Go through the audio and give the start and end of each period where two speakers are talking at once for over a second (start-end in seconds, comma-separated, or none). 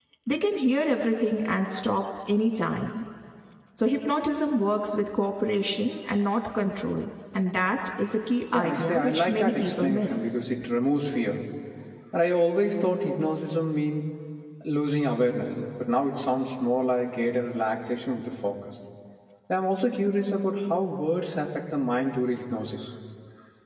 8.5-10.4